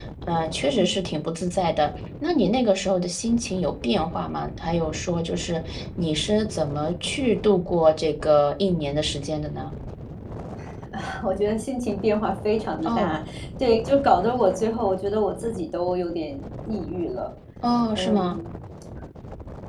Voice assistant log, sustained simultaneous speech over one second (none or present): none